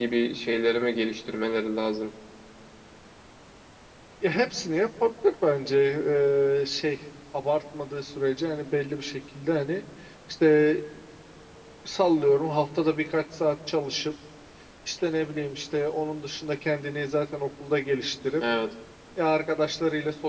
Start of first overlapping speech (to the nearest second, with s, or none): none